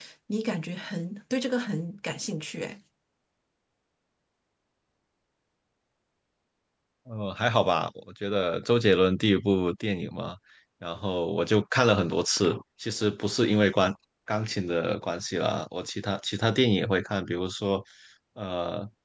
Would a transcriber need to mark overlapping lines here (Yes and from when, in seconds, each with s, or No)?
No